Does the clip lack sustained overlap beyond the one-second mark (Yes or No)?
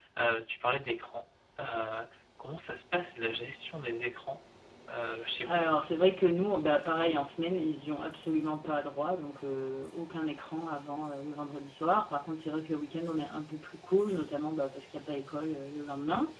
Yes